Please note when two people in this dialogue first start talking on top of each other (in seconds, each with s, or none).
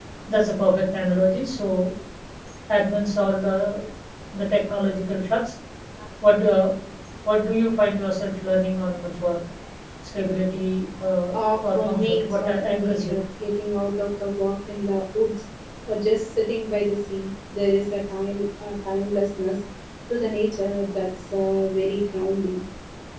11.7 s